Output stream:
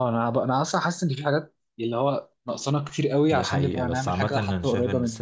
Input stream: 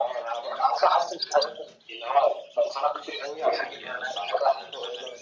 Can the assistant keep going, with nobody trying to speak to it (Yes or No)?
Yes